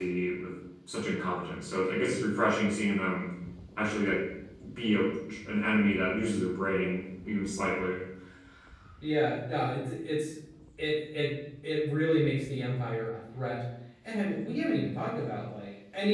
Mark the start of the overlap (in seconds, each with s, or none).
none